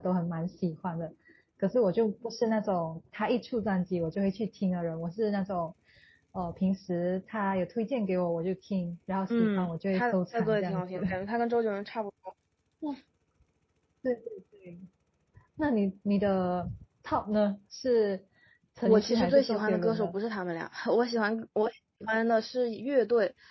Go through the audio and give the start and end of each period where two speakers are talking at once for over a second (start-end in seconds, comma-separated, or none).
9.3-11.0, 18.9-20.2